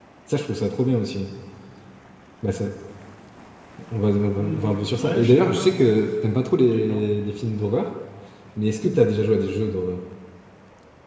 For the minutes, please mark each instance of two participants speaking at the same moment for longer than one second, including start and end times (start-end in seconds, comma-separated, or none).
4.4-5.8